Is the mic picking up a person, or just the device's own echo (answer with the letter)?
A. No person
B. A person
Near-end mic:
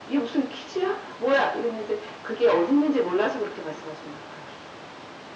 A